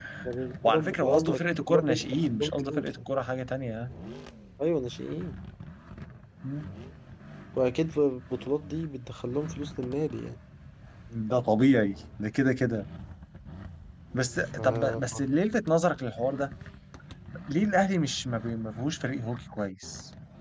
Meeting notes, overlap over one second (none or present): present